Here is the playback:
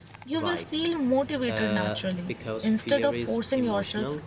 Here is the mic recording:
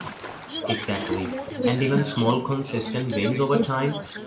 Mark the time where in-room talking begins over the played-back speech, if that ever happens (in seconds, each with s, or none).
0.6 s